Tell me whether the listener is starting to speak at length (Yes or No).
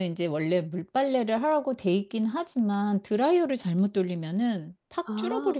No